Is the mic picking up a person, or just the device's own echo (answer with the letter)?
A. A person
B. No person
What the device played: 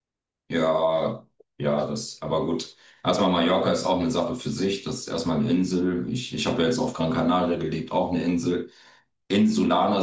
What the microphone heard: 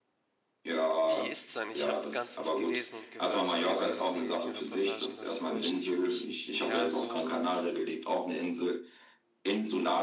A